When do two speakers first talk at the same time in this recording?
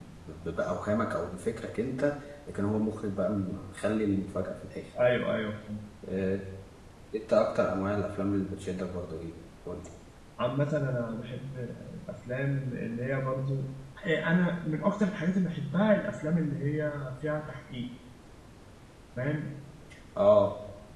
none

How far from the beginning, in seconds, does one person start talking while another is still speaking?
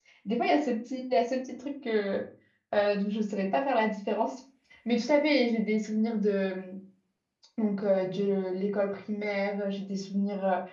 none

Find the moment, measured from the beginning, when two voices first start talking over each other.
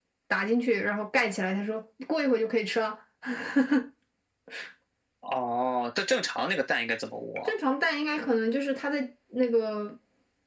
none

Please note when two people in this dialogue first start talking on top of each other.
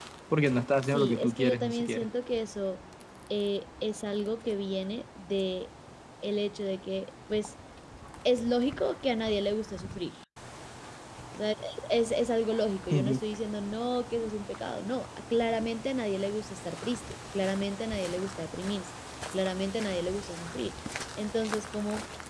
0.8 s

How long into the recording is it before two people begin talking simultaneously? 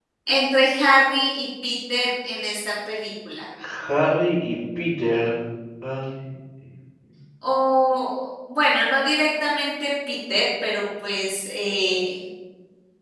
none

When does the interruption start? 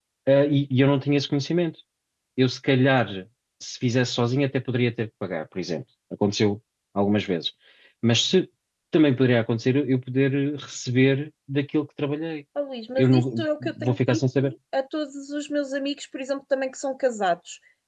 13.0 s

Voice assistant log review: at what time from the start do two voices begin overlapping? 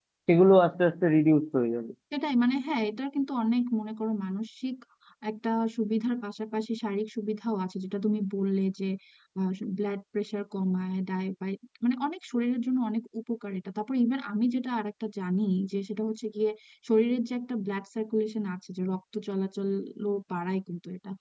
none

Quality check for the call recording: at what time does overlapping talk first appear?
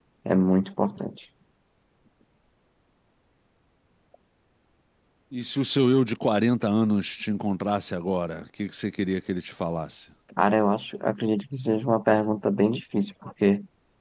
none

